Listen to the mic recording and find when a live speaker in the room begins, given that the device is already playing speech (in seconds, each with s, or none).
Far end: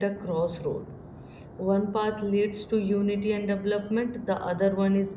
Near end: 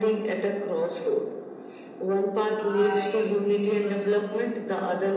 2.6 s